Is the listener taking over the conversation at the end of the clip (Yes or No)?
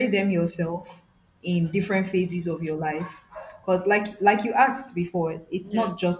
No